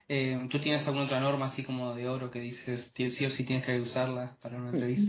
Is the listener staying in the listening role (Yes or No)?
No